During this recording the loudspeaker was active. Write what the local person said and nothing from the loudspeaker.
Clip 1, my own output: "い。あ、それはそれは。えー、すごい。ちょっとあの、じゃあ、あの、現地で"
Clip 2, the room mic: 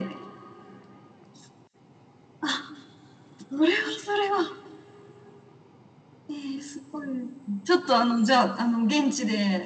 none

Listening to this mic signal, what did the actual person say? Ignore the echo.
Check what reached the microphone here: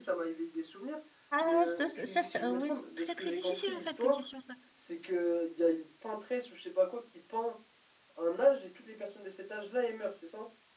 Ah non, ça, ça, ça, ça- ouais, c'est très très difficile en fait comme question ça.

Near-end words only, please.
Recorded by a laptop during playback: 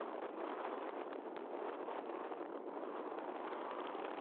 none

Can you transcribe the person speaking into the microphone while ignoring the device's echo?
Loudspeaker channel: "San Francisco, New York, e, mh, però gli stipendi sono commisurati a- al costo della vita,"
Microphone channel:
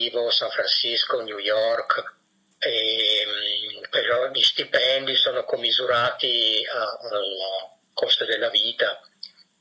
none

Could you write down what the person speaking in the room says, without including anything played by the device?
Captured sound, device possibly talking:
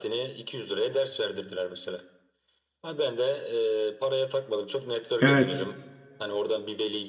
Evet.

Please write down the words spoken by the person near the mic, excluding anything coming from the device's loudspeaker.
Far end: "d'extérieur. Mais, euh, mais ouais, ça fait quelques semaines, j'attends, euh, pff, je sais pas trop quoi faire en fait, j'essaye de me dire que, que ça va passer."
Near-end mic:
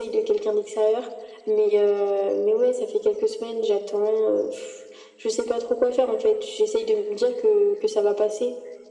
none

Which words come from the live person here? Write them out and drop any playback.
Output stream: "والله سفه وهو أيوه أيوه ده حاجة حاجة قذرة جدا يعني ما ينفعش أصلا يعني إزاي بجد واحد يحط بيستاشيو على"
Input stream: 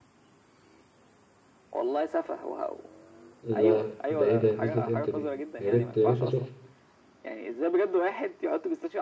لا ده ايه ده نزلت امتى دي يا ريت يا ريت اشوفها

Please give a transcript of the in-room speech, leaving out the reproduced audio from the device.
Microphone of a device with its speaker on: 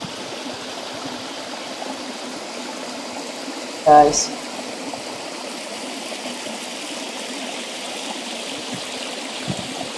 Ok, sì.

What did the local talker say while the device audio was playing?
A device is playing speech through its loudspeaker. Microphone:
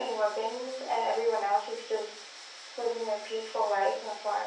none

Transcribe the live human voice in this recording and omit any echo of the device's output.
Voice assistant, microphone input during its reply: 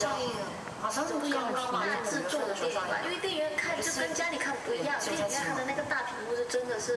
不一样的体验。

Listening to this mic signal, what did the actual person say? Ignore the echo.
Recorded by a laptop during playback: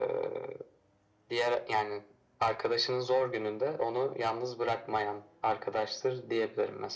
none

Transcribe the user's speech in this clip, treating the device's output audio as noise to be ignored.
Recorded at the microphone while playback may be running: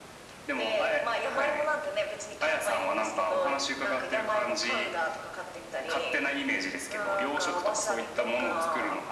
none

